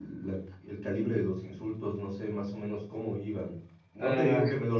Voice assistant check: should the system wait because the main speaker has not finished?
Yes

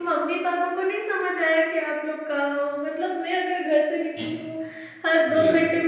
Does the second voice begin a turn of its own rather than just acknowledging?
No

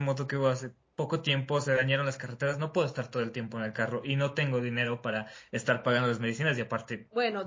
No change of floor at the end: No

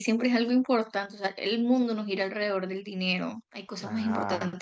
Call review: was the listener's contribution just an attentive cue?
No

